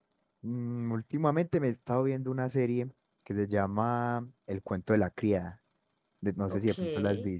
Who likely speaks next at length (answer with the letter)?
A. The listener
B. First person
A